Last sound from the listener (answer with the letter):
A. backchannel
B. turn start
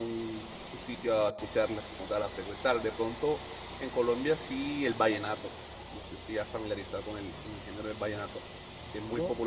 A